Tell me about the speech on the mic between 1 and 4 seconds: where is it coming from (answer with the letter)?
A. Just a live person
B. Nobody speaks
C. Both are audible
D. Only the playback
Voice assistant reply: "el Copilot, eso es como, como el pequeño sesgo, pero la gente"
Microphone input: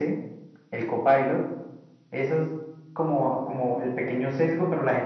D